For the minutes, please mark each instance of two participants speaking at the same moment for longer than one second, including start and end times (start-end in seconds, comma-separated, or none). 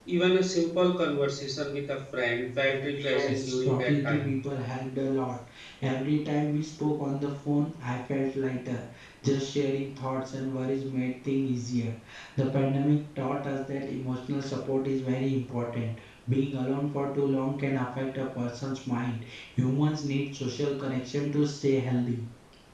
3.0-4.3